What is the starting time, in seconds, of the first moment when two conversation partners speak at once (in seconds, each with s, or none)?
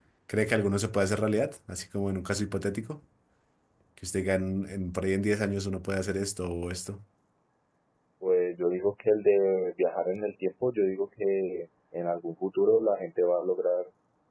none